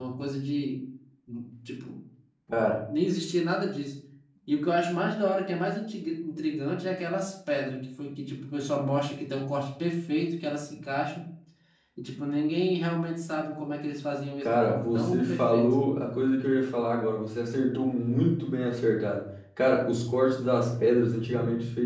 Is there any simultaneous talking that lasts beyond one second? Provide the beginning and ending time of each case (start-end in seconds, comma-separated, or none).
14.4-15.8